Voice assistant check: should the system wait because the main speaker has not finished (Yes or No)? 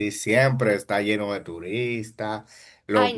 Yes